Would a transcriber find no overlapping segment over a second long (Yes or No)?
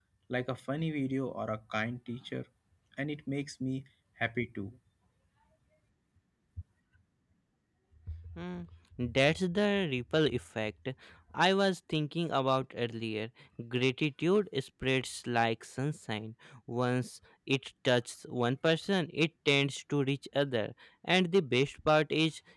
Yes